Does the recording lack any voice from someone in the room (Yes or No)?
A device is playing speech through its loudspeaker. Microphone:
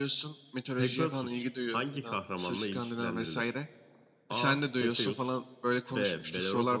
Yes